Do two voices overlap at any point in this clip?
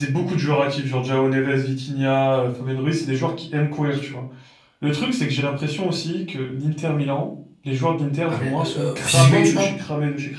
Yes, from 8.3 s

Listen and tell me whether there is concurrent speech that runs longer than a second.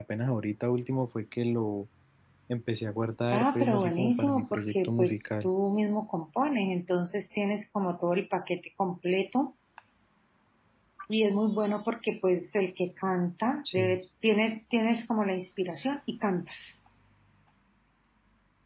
Yes, from 3.3 s

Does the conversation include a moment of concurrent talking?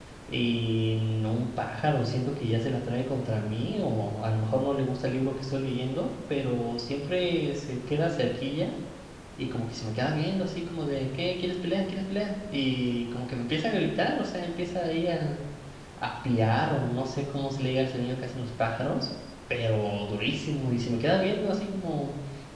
No

